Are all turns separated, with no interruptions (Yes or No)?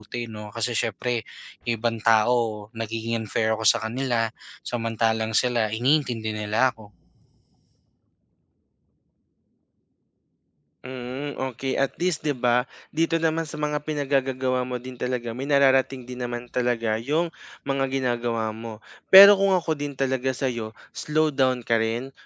Yes